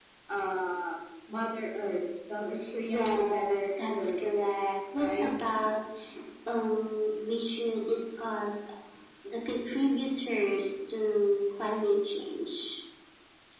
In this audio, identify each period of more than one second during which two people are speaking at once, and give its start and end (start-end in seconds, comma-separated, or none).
2.9-4.3